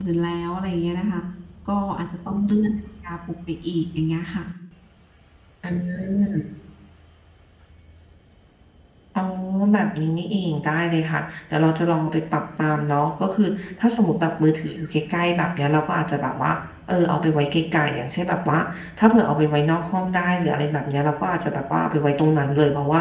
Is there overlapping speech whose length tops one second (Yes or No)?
No